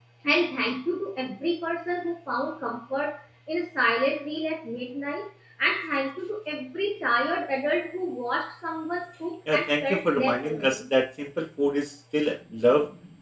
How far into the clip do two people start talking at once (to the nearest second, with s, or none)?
9 s